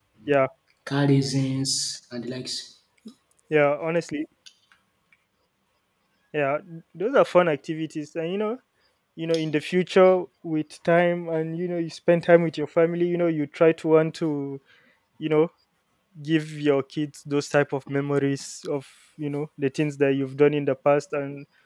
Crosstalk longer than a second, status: none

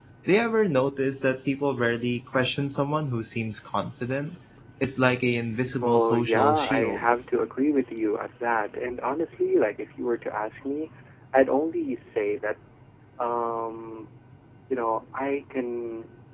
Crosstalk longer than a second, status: present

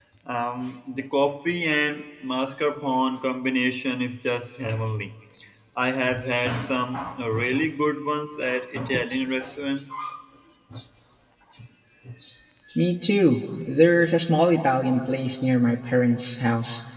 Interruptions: none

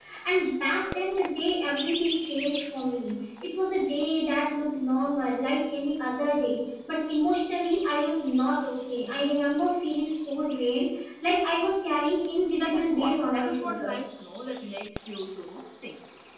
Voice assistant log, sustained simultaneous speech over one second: present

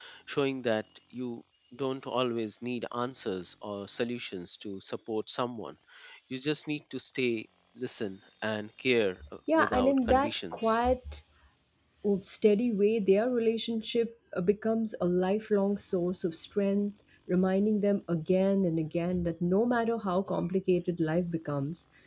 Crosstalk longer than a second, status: present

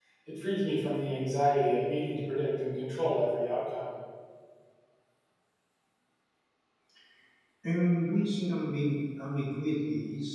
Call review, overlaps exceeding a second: none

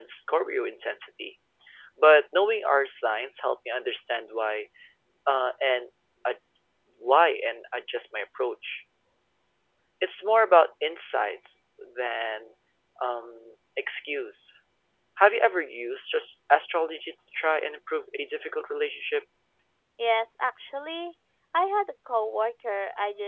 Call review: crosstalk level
none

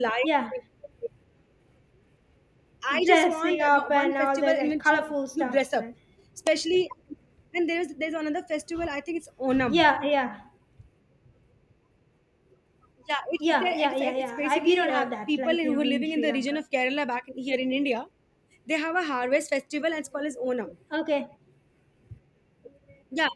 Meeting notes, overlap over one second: present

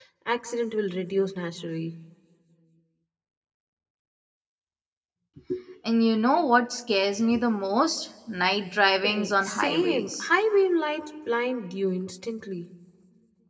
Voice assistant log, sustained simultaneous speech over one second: present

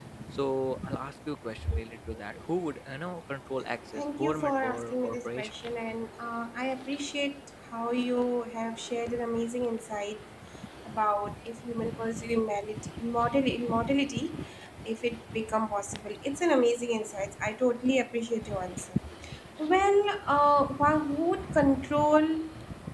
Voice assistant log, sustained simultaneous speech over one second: present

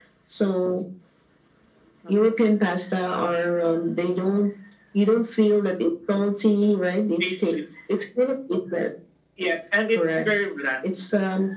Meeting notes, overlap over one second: none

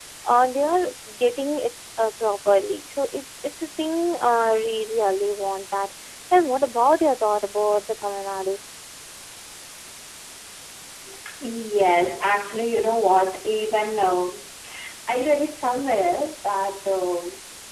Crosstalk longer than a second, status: none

